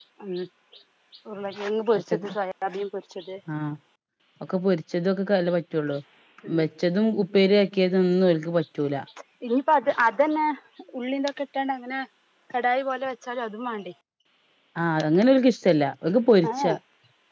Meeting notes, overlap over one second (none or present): none